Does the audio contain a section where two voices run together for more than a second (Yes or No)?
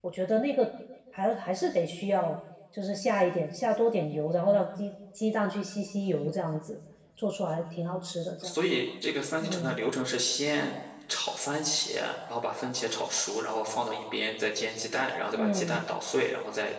No